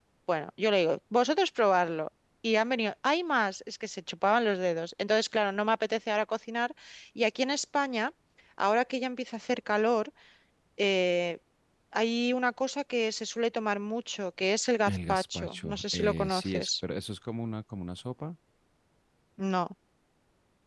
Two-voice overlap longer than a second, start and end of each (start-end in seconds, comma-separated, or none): 14.8-16.7